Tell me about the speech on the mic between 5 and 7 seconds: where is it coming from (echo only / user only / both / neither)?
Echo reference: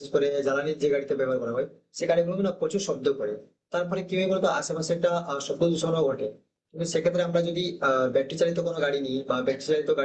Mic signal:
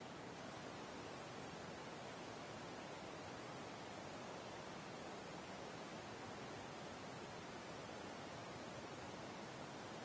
neither